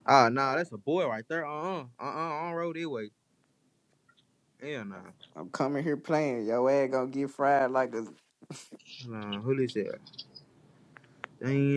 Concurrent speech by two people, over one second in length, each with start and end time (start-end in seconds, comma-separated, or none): none